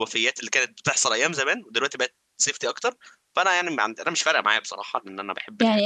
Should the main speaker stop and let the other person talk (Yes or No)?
Yes